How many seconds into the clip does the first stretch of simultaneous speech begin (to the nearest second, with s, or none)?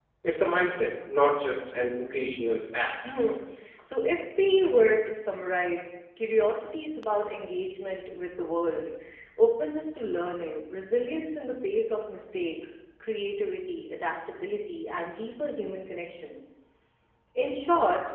none